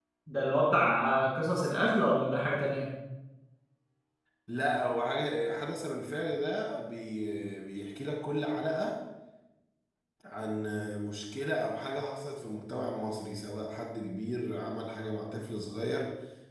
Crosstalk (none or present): none